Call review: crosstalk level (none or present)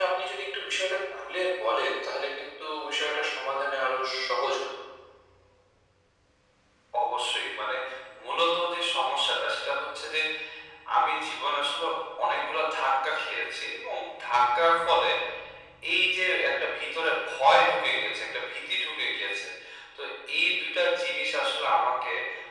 none